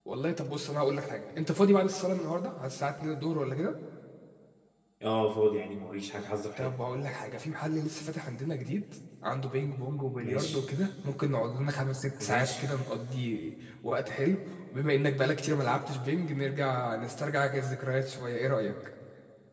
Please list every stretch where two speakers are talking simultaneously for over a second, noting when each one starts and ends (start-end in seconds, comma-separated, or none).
none